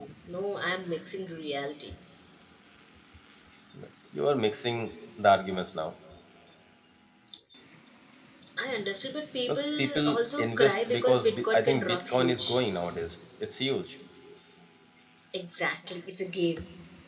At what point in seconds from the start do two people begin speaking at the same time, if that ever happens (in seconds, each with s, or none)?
9.5 s